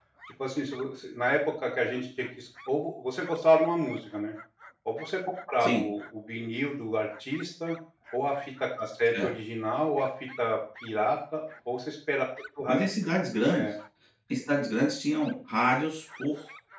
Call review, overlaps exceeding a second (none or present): none